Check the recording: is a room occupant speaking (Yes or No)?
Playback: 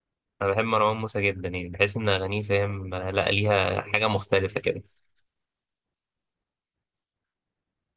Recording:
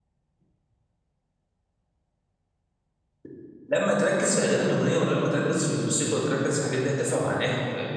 Yes